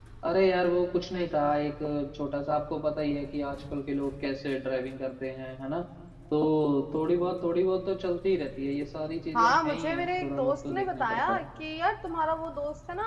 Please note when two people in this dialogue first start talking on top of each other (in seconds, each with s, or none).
9.3 s